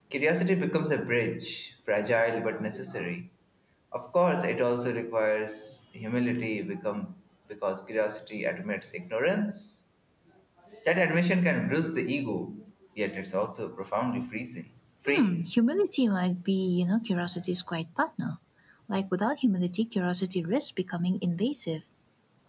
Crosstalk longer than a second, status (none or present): none